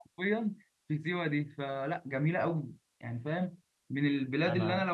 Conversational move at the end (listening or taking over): listening